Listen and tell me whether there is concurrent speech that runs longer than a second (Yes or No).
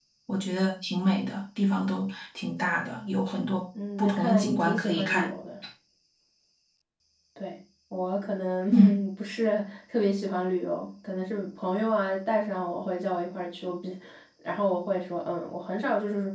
Yes